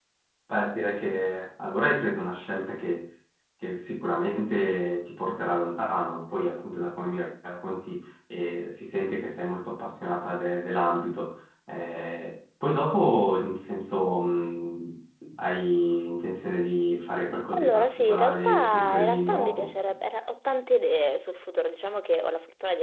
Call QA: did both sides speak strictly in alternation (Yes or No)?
No